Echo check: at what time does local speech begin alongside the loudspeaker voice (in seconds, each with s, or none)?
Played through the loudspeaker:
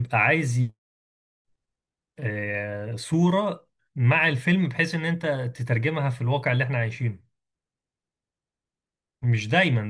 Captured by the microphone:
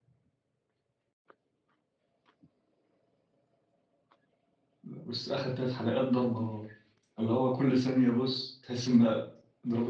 4.8 s